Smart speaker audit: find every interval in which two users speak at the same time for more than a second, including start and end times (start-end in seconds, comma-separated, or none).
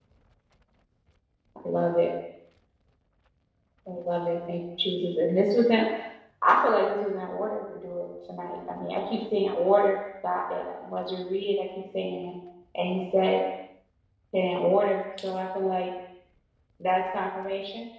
none